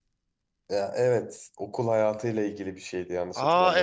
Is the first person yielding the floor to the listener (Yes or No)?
Yes